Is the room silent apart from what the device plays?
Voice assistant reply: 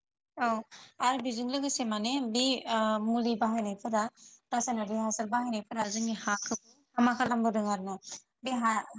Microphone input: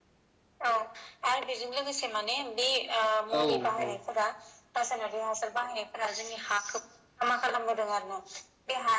No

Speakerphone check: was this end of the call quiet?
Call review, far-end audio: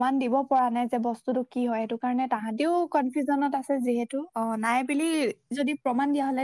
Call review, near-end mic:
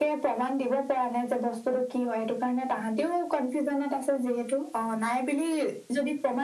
Yes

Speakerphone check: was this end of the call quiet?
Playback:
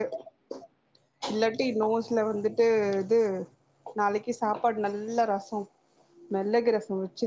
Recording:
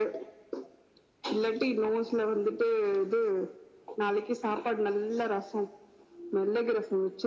Yes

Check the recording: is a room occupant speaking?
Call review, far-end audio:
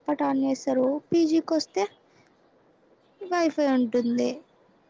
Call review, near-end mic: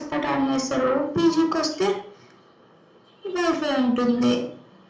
No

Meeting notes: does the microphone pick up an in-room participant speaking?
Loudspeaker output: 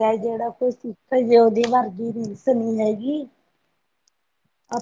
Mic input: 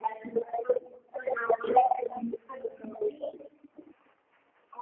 No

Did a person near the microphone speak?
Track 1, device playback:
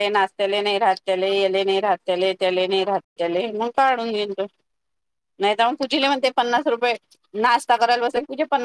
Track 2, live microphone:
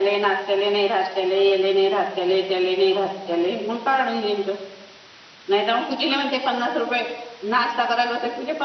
No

